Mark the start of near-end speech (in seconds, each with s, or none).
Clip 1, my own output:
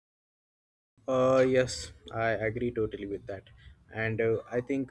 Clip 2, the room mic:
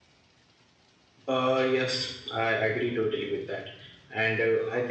none